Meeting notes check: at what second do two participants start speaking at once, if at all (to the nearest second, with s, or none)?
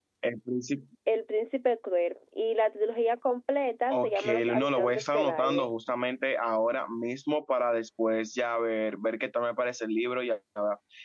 4 s